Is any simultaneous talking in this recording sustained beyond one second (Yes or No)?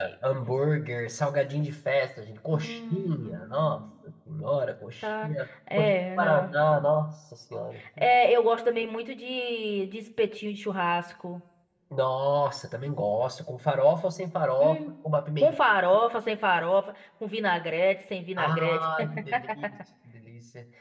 Yes